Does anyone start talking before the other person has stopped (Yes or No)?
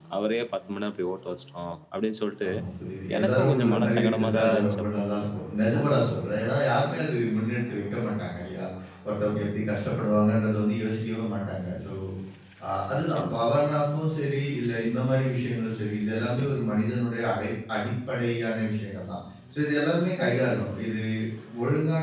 Yes